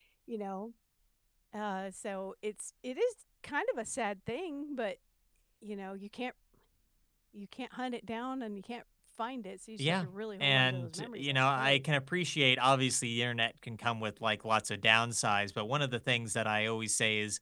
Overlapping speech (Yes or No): Yes